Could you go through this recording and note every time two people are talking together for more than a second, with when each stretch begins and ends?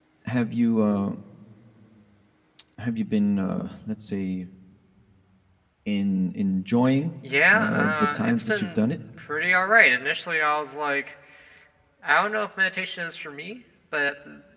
7.5-8.8

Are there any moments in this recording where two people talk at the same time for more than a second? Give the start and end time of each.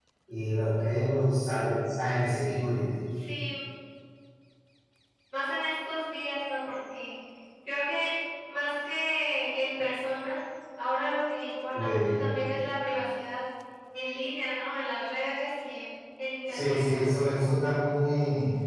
none

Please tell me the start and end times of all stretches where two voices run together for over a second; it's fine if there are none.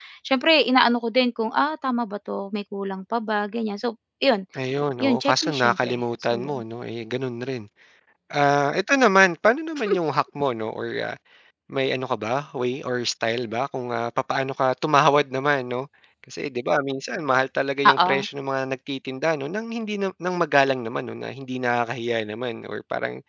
5.0-6.6

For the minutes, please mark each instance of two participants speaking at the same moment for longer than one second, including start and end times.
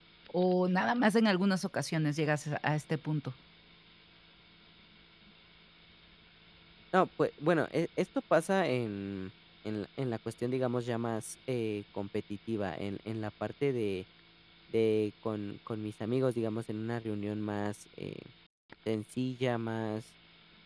none

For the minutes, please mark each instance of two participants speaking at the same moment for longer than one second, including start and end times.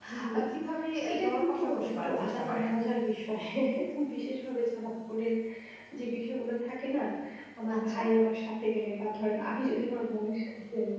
1.1-2.7

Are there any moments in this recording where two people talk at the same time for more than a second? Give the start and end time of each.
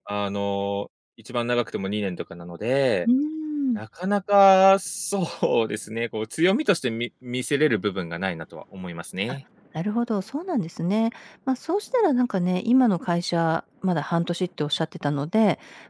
none

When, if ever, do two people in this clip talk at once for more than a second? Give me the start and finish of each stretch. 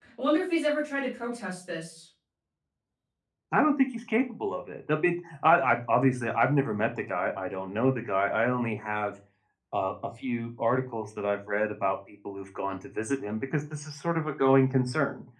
none

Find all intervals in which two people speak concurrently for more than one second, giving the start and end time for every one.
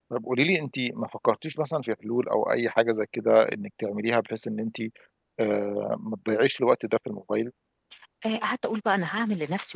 none

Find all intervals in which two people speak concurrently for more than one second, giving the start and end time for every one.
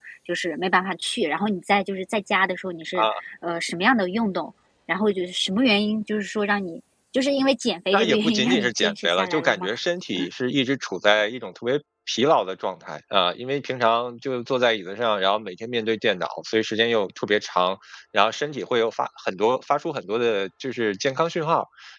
7.9-9.7

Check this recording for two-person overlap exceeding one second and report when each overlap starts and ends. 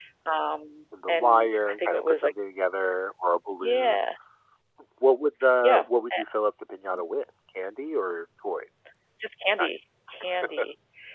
1.1-2.3

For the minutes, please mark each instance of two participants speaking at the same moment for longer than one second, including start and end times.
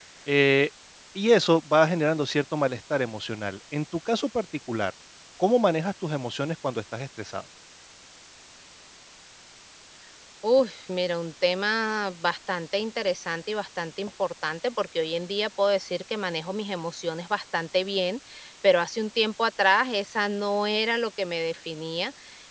none

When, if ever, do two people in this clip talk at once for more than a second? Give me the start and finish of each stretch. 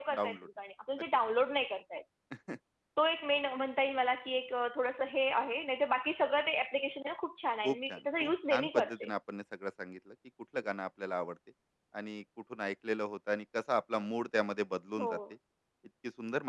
7.7-9.1

